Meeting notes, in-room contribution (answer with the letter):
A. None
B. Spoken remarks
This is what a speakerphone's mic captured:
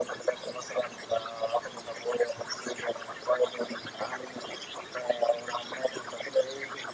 A